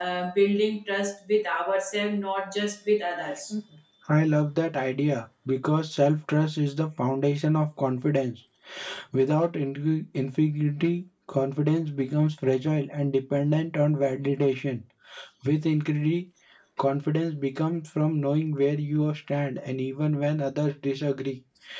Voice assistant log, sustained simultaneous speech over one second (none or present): none